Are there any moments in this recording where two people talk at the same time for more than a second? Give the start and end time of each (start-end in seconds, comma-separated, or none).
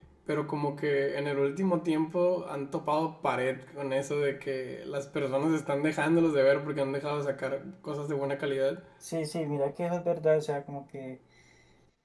none